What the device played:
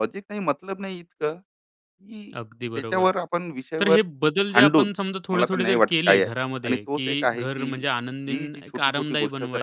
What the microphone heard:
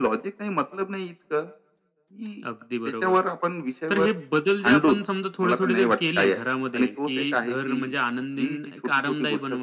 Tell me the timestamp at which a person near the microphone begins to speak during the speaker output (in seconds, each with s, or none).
none